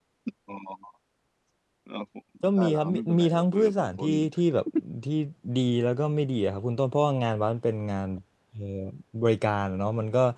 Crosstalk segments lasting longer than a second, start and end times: 2.6-4.1

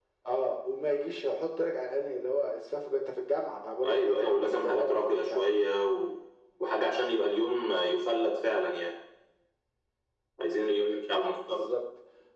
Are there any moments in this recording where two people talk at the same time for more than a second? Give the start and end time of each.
3.8-5.6

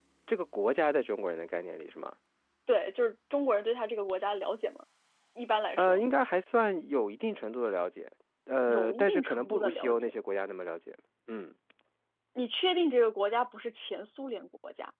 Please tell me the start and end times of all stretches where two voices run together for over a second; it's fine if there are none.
8.7-10.1

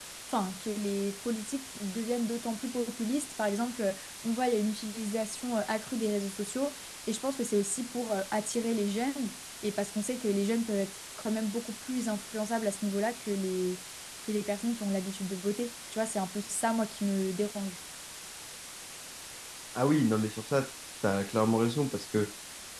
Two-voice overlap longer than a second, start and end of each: none

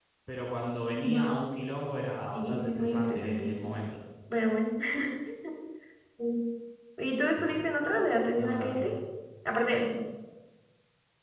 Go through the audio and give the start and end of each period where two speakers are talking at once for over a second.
2.2-3.5

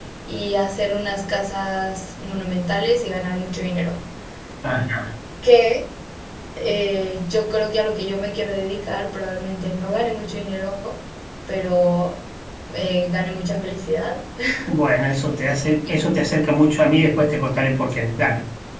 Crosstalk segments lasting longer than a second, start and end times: none

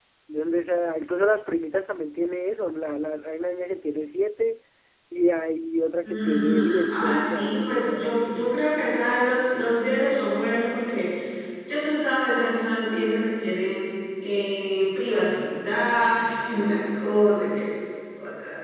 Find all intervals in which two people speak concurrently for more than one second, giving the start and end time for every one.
6.0-8.4

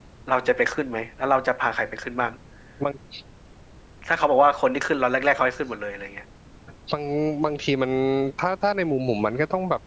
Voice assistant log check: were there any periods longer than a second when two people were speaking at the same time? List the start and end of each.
none

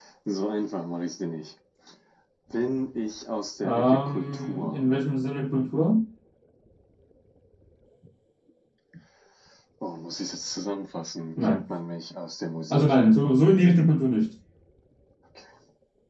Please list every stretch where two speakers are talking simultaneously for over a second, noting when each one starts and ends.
3.6-4.8

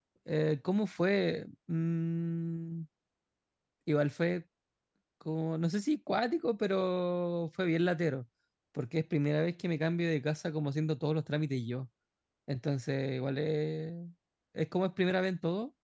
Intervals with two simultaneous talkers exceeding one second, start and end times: none

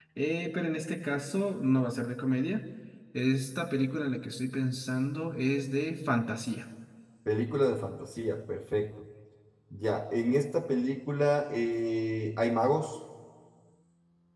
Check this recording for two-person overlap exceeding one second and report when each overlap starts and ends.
none

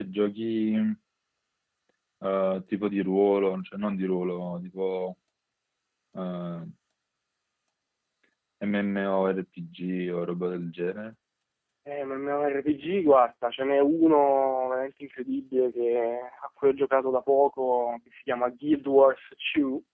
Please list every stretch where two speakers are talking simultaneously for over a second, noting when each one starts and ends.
none

